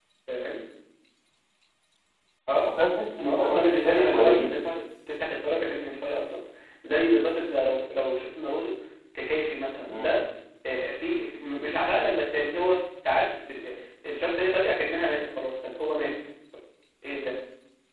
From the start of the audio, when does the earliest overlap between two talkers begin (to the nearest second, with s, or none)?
3 s